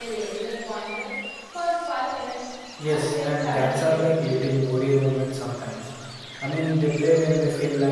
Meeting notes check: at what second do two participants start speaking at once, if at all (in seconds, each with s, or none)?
2.8 s